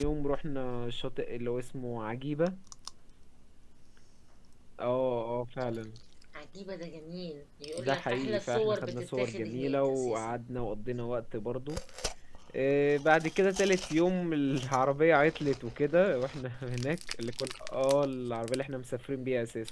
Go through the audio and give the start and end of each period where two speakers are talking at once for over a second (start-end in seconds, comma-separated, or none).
7.8-10.4